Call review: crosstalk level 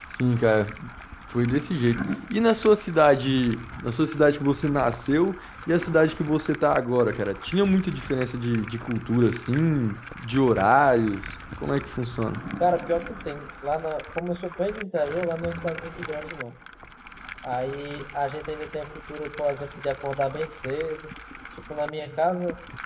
none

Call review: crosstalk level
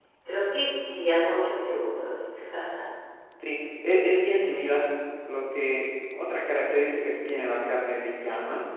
none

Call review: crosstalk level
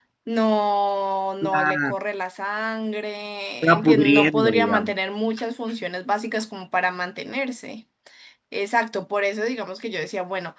present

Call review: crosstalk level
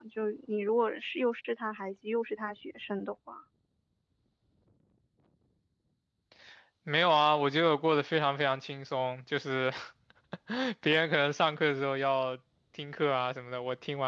none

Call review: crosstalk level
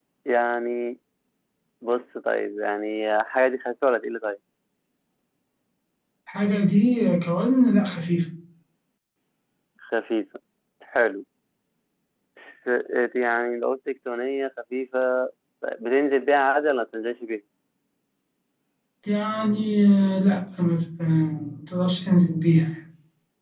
none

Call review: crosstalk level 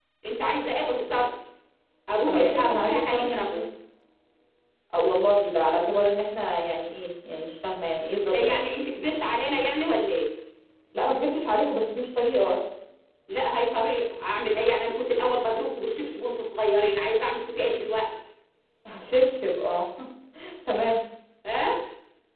present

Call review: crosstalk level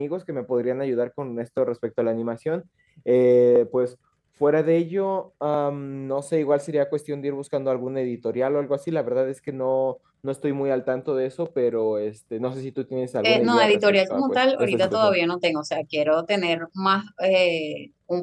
present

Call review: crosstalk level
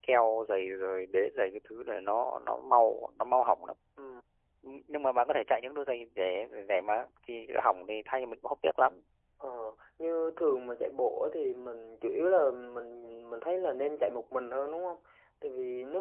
none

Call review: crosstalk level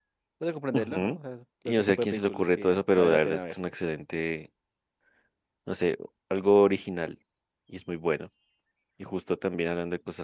present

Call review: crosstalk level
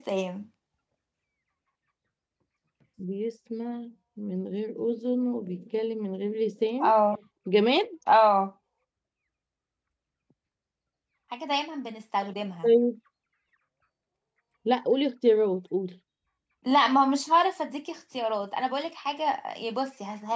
none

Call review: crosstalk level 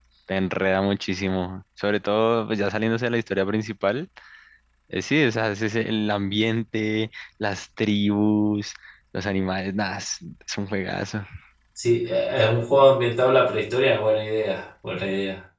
none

